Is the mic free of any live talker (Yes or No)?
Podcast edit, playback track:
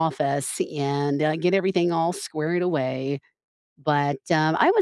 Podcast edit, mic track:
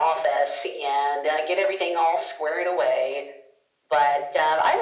Yes